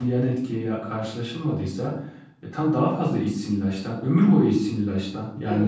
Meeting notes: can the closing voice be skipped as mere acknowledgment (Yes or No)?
No